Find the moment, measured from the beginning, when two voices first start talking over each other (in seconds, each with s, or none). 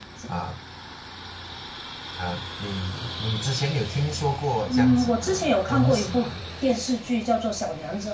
4.7 s